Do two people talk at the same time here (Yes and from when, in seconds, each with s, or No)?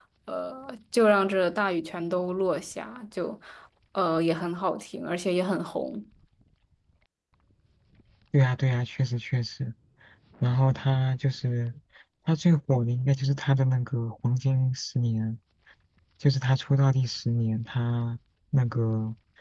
No